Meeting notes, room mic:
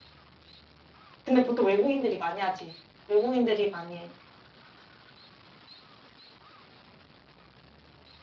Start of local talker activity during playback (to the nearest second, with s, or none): 1 s